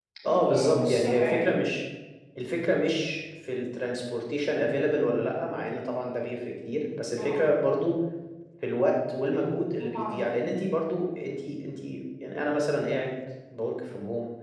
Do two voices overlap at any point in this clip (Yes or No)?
Yes